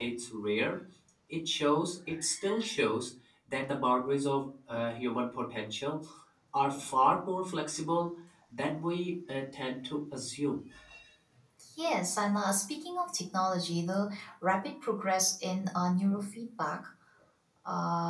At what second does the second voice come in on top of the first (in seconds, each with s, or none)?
none